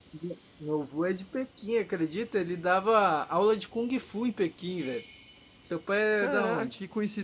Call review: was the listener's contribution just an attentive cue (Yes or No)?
No